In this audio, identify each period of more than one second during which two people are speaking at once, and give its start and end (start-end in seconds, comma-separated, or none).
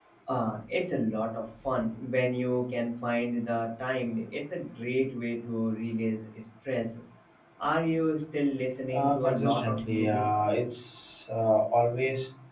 8.9-10.2